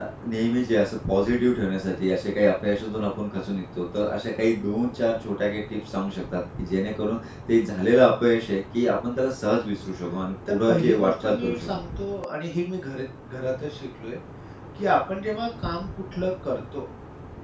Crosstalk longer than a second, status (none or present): present